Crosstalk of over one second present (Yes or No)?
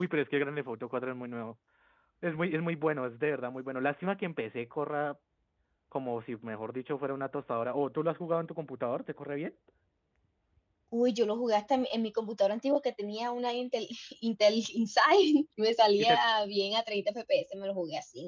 No